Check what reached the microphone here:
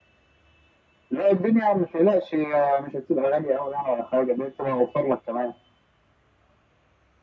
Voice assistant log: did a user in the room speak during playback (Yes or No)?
No